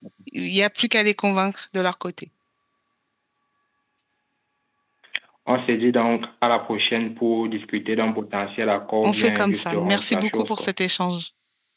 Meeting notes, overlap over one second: present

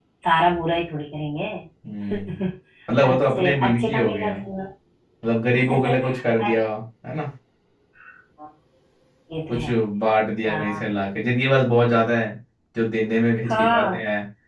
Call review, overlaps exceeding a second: present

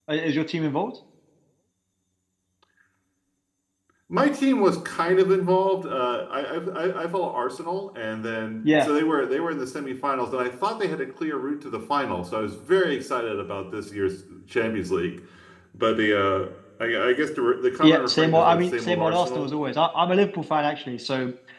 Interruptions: present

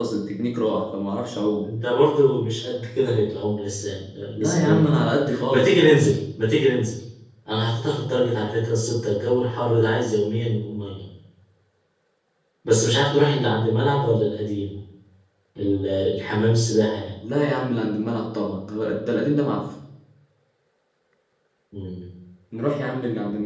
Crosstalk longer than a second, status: present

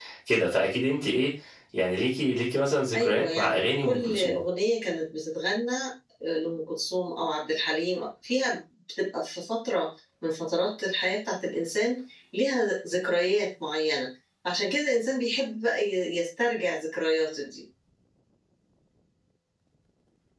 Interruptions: present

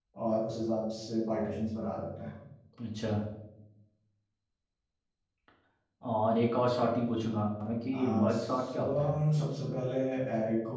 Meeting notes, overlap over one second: present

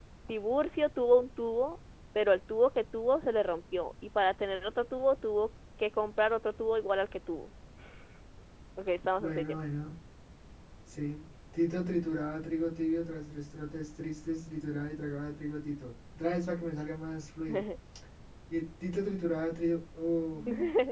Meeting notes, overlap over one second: none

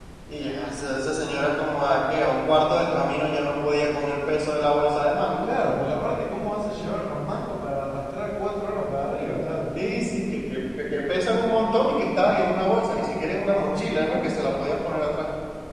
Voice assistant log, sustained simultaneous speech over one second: none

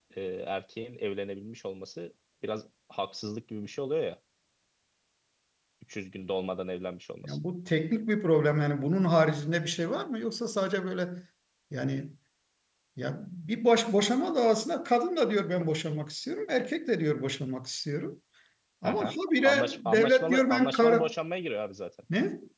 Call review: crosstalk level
present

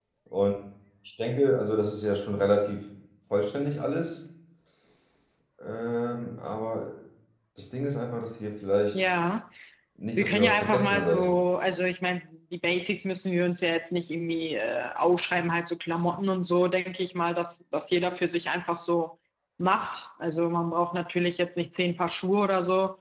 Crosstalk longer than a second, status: present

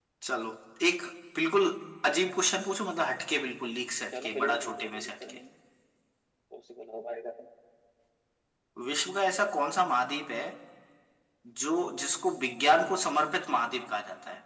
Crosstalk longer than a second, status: present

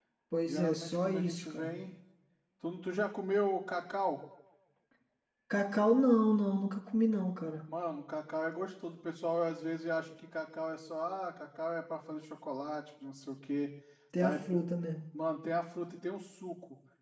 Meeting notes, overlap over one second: present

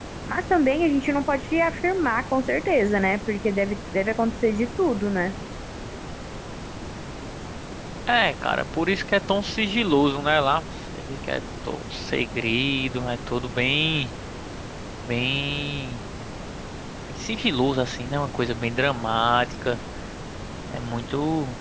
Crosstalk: none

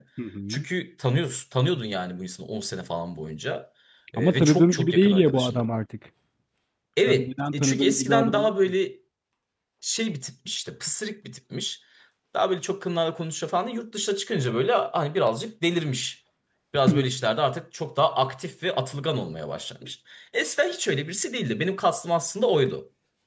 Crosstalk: present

